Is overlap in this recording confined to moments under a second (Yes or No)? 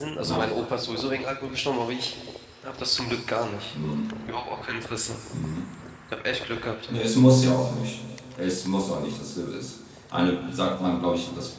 Yes